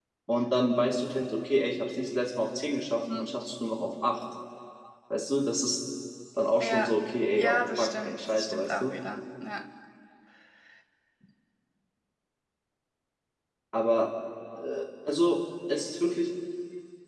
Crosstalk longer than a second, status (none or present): present